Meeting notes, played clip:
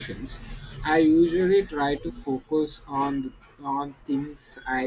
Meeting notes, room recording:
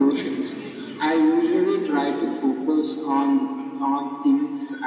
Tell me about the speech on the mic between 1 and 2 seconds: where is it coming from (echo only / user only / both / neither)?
echo only